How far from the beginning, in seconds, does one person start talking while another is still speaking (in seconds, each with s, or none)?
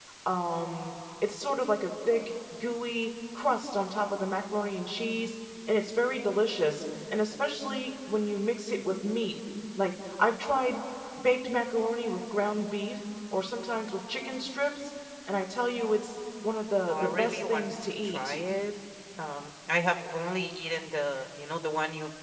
16.9 s